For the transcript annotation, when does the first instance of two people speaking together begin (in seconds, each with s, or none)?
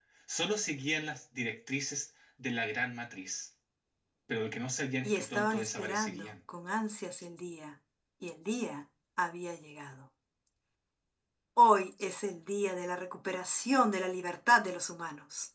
5.0 s